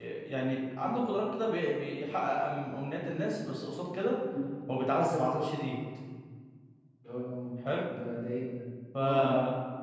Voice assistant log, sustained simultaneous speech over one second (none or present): none